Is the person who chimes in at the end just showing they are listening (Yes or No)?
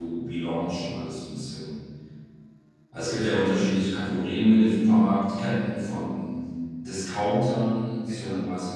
Yes